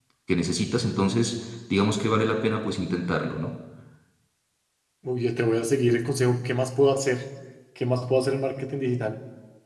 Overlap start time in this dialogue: none

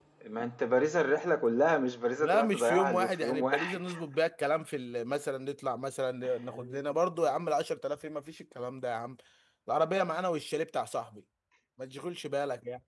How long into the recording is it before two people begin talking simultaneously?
2.2 s

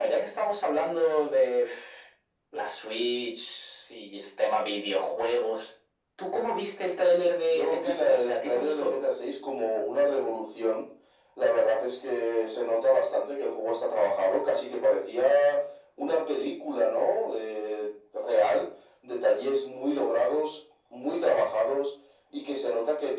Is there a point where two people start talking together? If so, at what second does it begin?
7.5 s

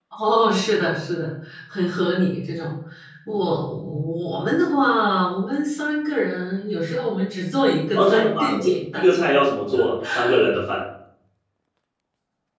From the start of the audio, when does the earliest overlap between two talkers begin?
8.0 s

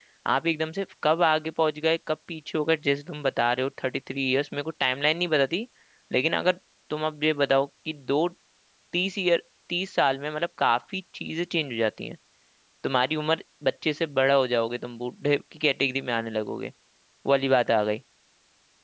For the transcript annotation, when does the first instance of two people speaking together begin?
none

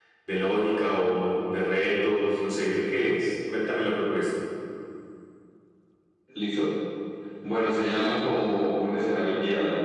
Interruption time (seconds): none

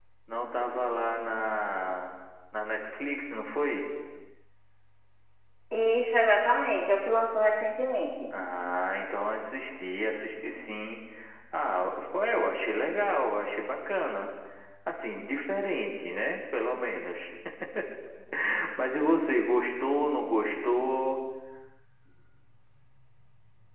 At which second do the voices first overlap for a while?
none

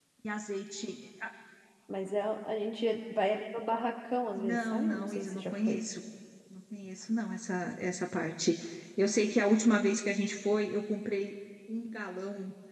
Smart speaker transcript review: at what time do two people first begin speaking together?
4.4 s

